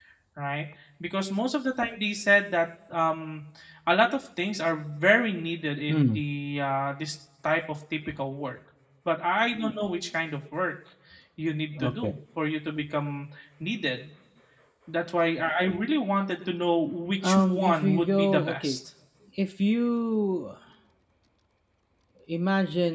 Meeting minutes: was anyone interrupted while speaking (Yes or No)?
Yes